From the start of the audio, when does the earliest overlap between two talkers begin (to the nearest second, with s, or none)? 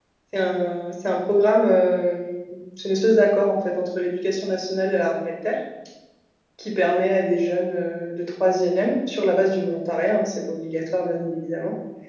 none